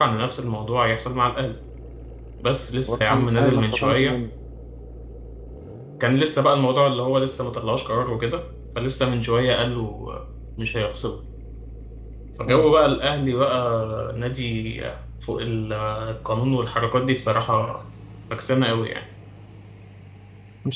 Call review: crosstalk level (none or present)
present